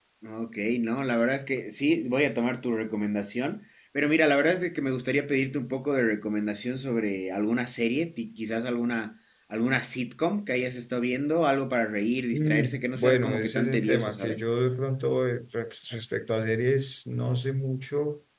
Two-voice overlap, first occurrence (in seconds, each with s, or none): 12.3 s